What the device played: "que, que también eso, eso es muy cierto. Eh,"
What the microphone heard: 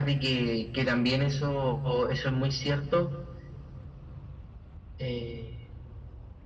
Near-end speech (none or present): none